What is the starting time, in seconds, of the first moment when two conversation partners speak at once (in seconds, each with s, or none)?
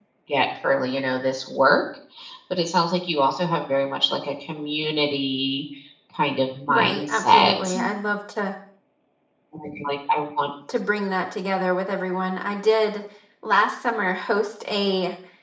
6.7 s